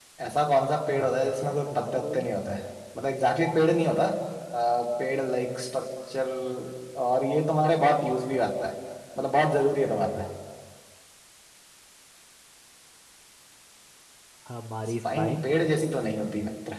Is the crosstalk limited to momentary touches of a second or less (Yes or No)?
No